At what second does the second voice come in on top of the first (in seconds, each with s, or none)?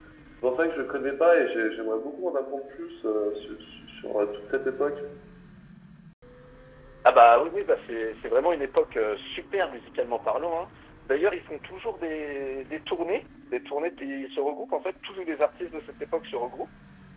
none